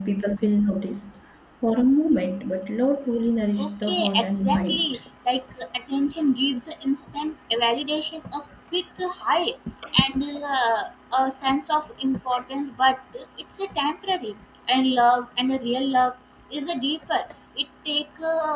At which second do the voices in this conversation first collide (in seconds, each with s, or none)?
3.6 s